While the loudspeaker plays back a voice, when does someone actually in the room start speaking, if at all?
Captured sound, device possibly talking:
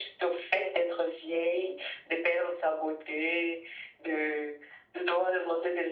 none

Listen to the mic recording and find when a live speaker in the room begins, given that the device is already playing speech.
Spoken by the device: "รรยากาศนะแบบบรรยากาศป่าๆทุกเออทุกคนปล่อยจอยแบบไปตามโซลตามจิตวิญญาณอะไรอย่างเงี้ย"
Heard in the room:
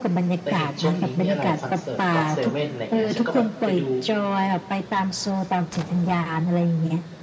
0.4 s

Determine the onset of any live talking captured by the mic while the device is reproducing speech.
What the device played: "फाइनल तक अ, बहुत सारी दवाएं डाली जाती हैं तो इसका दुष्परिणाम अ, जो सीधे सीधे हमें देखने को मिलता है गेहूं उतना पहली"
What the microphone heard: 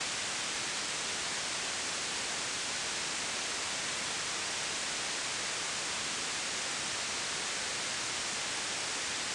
none

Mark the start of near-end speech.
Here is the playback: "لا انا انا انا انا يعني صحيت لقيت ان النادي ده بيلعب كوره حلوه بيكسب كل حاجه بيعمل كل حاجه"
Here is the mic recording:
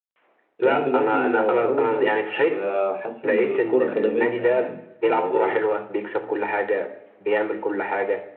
0.6 s

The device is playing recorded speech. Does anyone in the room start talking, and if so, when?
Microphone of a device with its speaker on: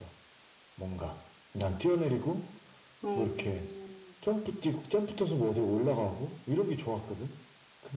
3.0 s

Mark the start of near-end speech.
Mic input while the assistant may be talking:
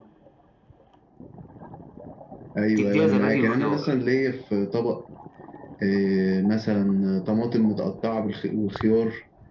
2.8 s

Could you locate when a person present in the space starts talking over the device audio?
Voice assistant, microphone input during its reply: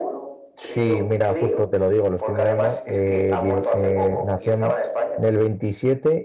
0.6 s

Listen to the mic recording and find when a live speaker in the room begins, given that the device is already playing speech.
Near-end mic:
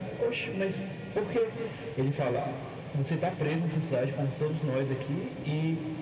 none

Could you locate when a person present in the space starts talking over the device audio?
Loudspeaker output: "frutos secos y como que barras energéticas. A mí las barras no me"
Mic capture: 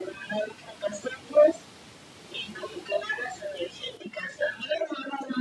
none

